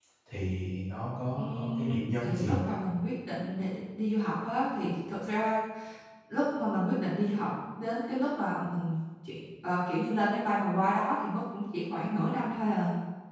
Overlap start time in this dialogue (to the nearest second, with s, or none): 1 s